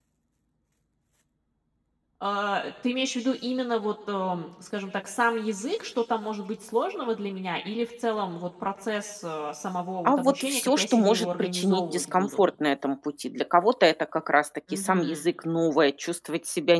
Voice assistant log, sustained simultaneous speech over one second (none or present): present